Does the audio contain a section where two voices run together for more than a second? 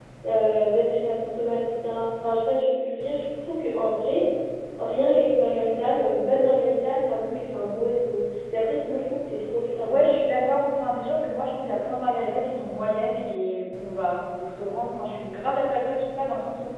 No

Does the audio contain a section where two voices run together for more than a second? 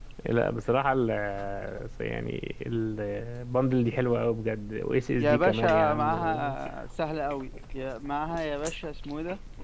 Yes, from 5.2 s

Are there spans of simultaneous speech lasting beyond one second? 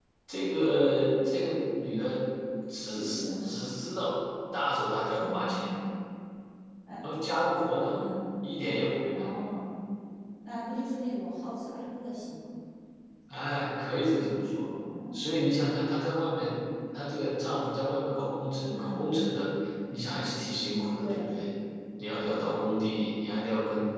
No

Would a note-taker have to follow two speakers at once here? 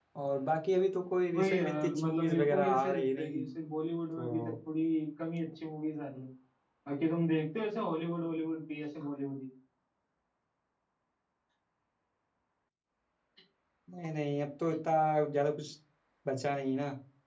Yes, from 1.3 s

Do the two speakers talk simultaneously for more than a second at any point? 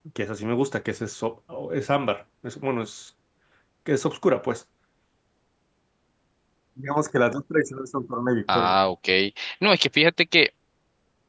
No

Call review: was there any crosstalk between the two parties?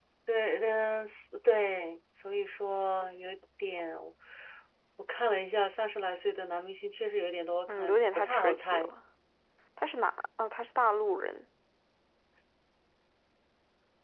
Yes, from 7.7 s

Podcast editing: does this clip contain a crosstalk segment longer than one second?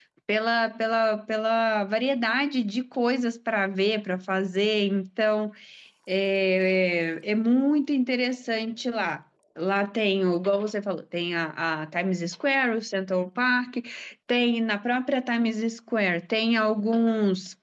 No

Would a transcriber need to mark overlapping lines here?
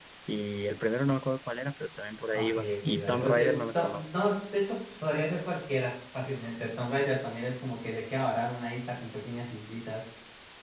Yes, from 2.3 s

